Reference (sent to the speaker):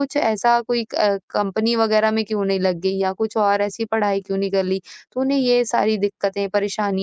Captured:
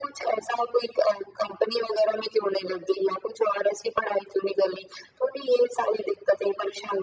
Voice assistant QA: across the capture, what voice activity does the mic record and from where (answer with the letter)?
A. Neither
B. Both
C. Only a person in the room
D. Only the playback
D